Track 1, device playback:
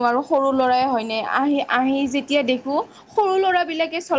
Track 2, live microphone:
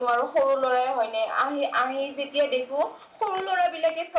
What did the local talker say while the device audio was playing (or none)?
none